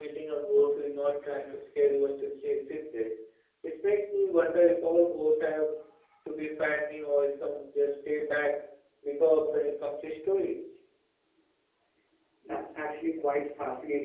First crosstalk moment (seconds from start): none

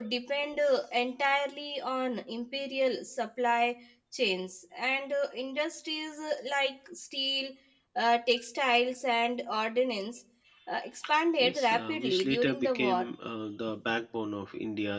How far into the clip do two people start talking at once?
11.4 s

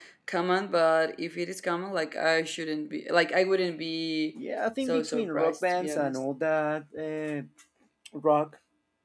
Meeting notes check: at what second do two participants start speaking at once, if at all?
4.8 s

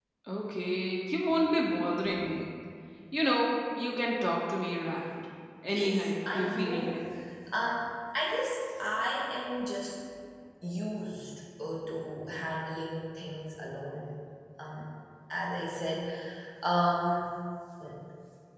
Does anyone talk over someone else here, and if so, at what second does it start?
5.7 s

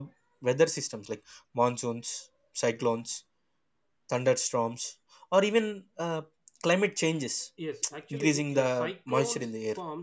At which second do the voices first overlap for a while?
8.1 s

